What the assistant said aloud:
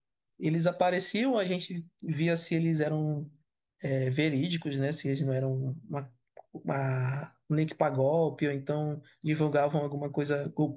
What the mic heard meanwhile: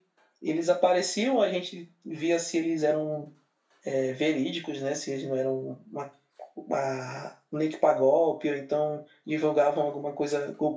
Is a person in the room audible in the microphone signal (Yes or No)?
No